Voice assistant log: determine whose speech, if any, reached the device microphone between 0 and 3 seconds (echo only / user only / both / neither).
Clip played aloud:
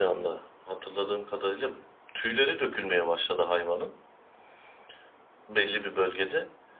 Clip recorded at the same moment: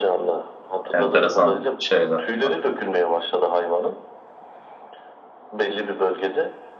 both